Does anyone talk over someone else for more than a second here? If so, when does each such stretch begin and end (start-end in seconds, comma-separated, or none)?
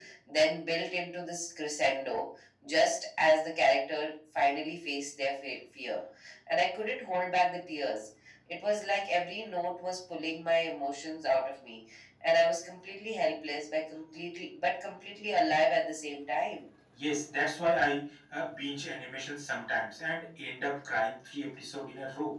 none